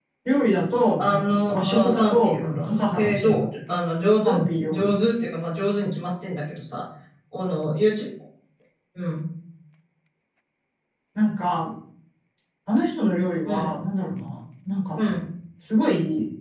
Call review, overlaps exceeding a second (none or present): present